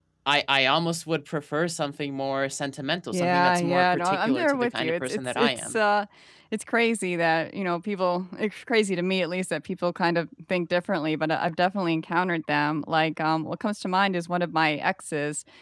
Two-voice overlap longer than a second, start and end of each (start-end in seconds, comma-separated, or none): 3.1-5.8